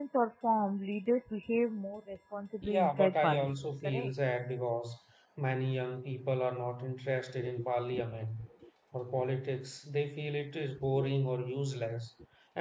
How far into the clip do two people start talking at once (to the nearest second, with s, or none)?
3 s